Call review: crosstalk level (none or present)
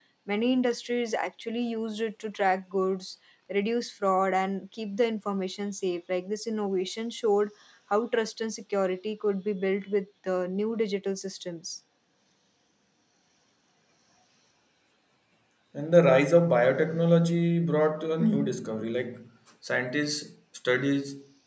none